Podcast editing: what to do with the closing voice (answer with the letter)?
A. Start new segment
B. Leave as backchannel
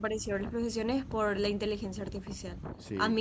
B